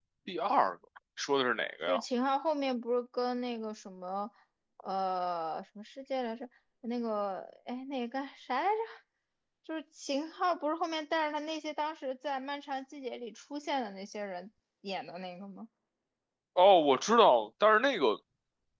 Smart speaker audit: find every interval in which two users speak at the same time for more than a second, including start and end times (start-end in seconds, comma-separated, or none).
none